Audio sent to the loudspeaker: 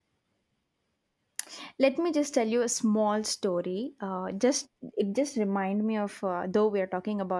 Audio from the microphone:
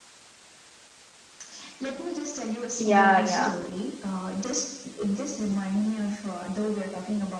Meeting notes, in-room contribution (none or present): present